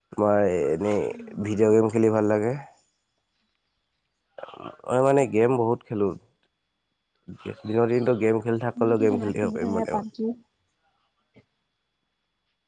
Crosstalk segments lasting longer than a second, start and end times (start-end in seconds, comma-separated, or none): 8.8-10.0